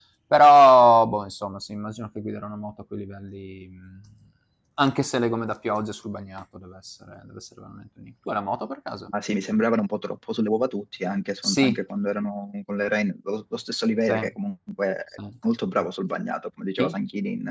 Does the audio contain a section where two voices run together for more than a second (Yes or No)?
No